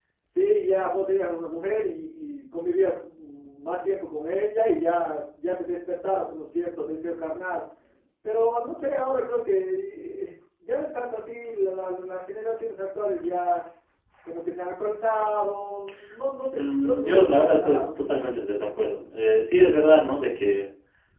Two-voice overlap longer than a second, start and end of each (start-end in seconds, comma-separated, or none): 16.6-17.8